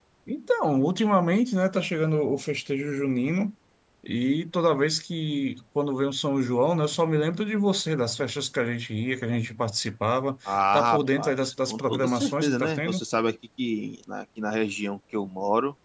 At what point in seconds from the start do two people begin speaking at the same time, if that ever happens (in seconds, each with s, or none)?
10.4 s